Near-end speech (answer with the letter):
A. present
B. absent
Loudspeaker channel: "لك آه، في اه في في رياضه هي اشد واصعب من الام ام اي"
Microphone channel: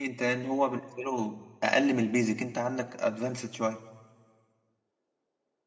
A